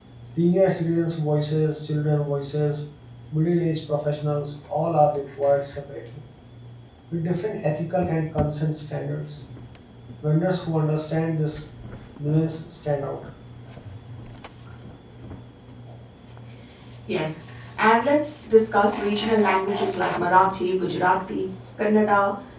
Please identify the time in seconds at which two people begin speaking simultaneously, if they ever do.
none

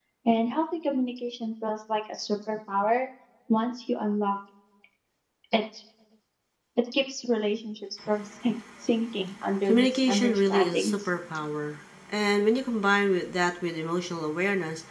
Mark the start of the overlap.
9.7 s

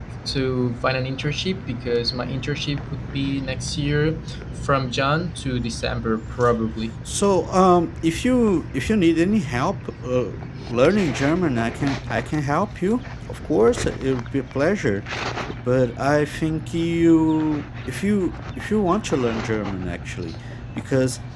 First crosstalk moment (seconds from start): none

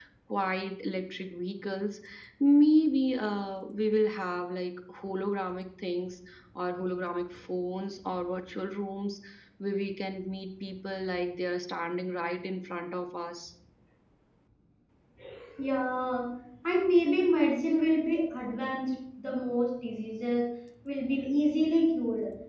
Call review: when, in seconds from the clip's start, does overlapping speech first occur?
none

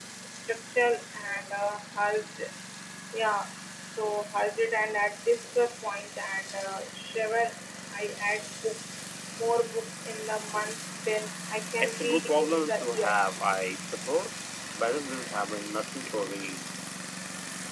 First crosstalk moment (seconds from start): 11.8 s

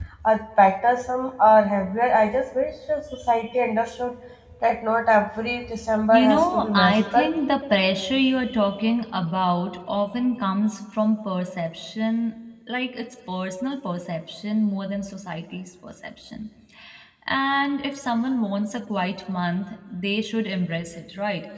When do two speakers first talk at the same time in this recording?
6.1 s

